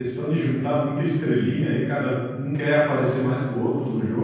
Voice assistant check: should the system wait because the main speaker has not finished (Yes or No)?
Yes